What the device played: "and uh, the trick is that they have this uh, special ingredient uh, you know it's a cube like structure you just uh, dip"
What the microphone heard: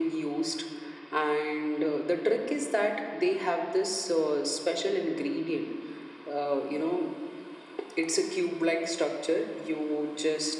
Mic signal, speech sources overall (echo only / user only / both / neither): echo only